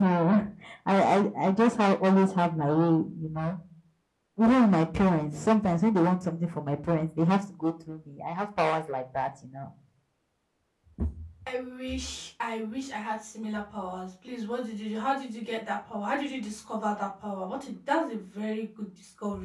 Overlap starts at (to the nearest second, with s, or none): none